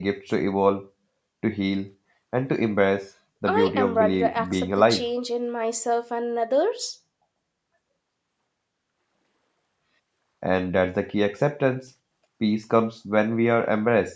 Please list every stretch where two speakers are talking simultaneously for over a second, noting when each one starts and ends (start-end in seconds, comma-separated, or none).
3.5-5.0